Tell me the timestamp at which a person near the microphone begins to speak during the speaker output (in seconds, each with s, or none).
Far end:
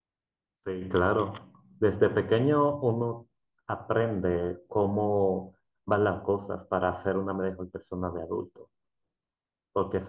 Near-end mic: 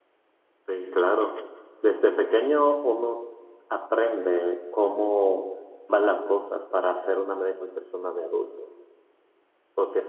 none